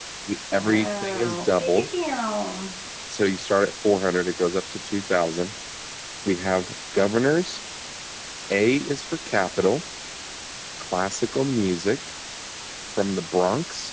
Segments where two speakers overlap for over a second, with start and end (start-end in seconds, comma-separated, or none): 0.5-1.8